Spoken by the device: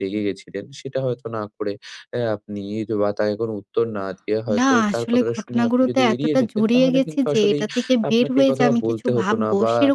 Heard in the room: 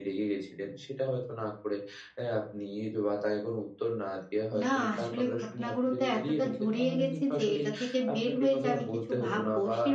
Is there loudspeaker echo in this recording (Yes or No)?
Yes